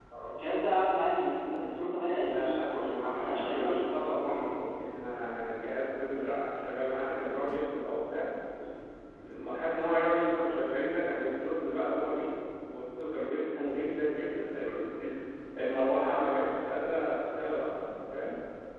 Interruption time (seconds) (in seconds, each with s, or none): 2.2 s